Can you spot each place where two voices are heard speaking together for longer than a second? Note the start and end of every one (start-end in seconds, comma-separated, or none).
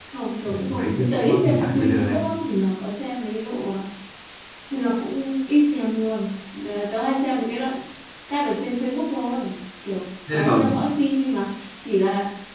0.5-2.2